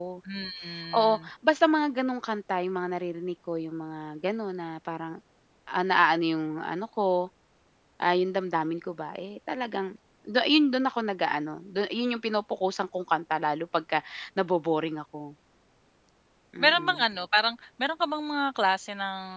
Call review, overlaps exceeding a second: none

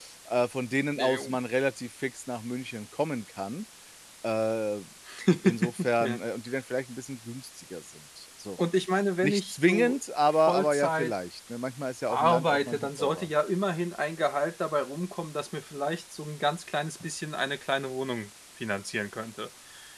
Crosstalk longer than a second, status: present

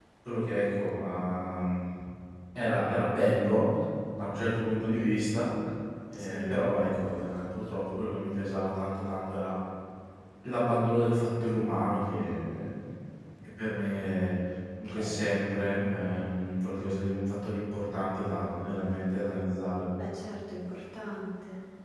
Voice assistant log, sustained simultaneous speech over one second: none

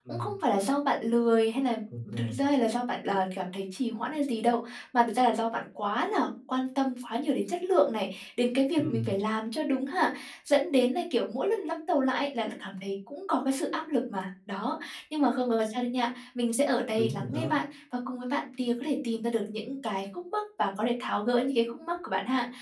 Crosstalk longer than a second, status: none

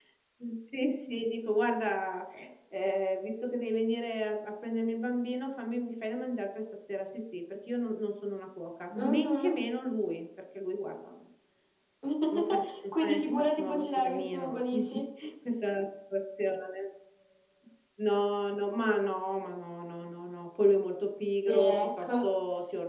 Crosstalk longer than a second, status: present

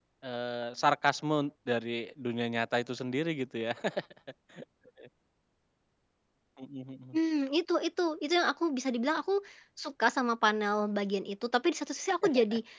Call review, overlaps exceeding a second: none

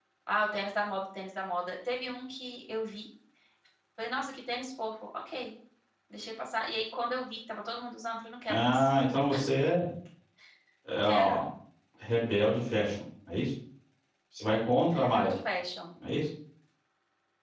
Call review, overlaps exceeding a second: none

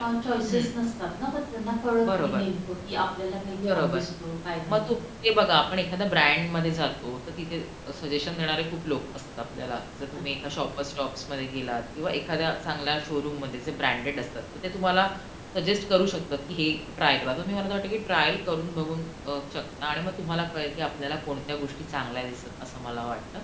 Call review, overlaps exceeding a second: none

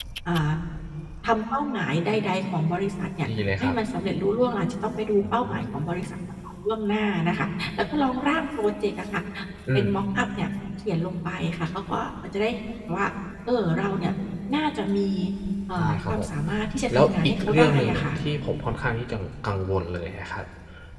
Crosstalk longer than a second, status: present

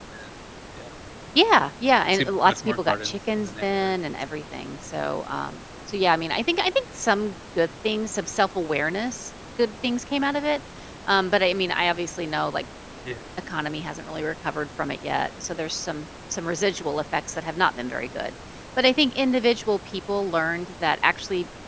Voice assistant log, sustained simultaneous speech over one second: present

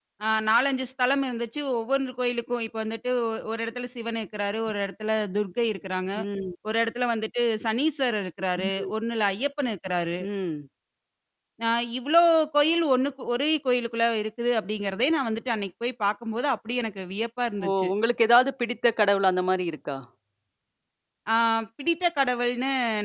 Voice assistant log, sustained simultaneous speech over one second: none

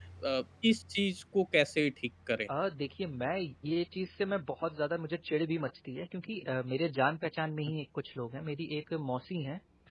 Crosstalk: none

